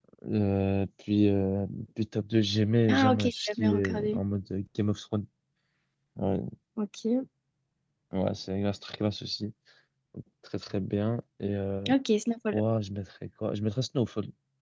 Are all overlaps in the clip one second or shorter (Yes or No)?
No